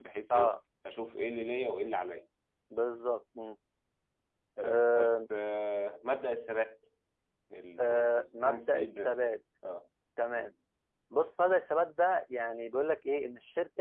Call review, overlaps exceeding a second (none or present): present